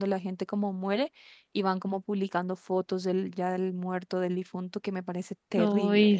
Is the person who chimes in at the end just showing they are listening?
No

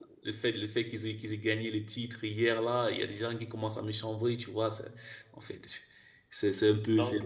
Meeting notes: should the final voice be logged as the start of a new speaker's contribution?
No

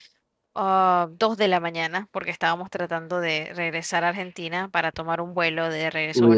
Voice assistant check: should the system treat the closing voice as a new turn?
Yes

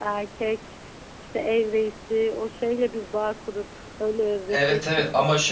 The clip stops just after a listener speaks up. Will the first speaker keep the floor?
No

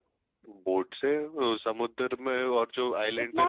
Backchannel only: No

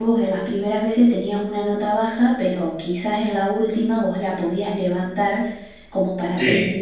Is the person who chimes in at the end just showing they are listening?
Yes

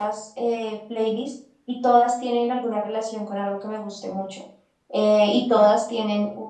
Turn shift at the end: No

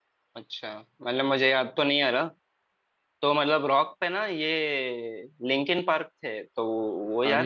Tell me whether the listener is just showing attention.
No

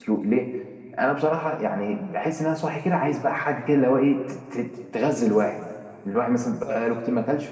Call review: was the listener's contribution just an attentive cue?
Yes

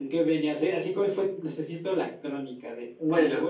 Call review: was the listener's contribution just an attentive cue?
Yes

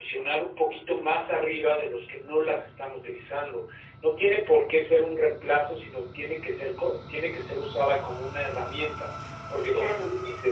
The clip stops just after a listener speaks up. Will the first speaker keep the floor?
Yes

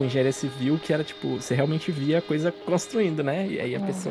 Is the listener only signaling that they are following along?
Yes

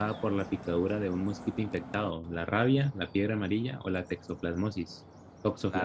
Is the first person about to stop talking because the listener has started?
Yes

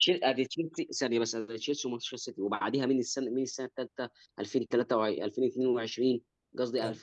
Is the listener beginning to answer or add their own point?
No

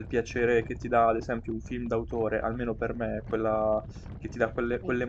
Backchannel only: Yes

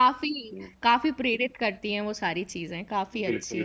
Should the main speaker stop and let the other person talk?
Yes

